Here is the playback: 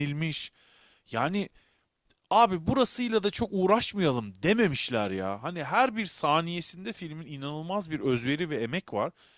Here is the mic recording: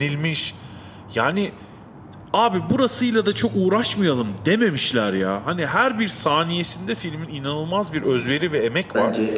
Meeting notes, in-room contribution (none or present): present